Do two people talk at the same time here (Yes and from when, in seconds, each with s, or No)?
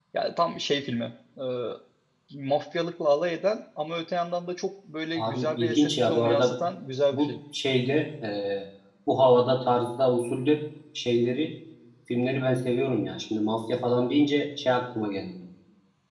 Yes, from 5.2 s